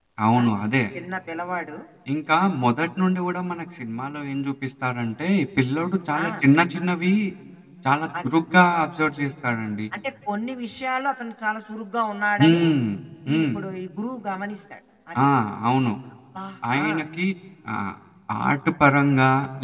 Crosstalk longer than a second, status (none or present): none